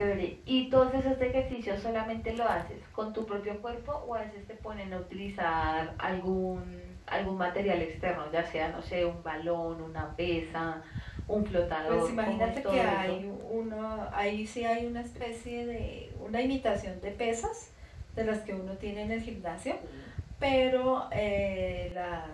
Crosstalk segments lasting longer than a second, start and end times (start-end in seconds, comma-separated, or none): 11.9-13.2